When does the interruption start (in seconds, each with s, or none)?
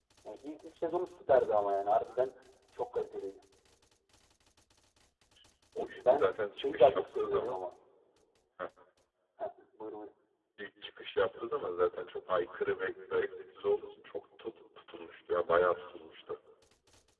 6.2 s